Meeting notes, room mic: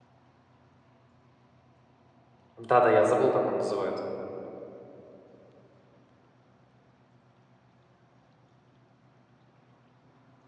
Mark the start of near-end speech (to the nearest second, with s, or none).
3 s